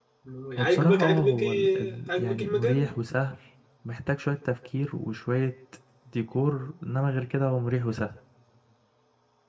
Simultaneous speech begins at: 0.6 s

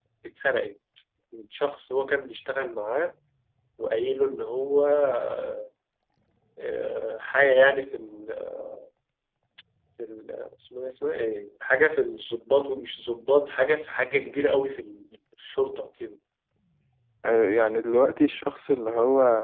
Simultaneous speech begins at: none

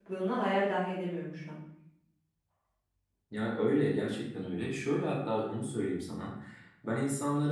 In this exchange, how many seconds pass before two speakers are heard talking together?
none

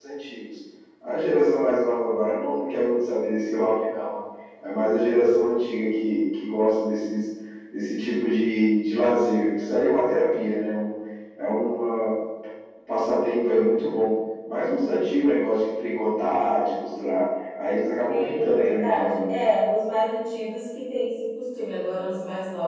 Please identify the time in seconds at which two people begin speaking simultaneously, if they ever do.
18.1 s

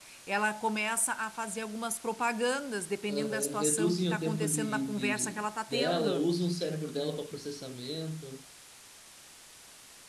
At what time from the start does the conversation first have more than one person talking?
3.1 s

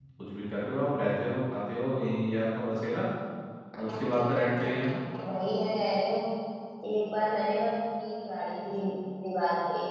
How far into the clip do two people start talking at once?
none

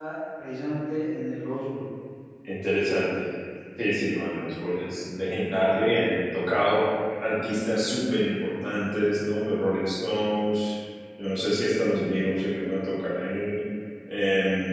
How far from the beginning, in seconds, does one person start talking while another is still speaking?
none

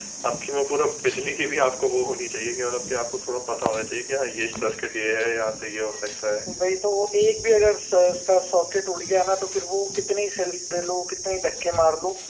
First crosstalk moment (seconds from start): none

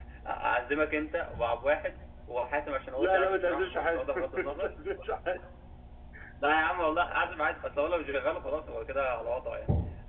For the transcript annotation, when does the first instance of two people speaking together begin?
3.0 s

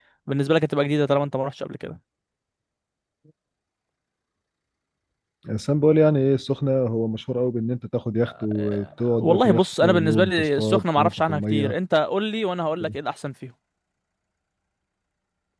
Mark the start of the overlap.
8.2 s

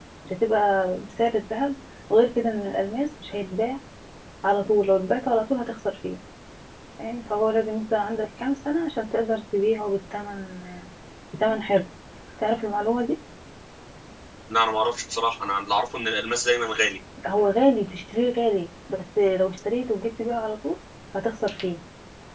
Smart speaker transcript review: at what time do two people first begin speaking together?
none

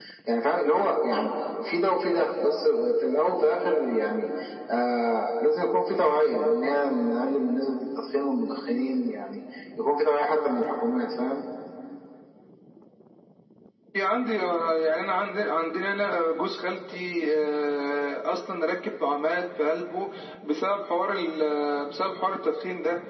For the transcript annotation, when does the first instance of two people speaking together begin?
none

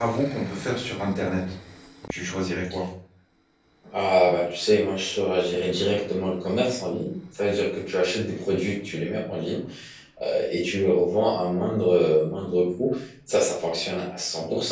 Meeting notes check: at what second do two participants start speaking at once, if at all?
none

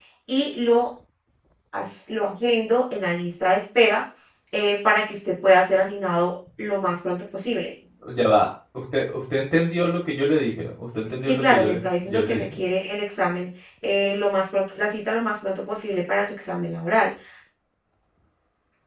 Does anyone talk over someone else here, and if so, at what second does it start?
11.2 s

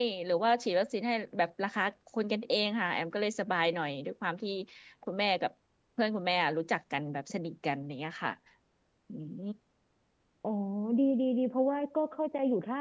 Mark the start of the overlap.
none

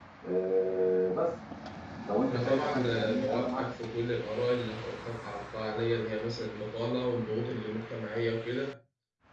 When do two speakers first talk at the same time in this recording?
2.3 s

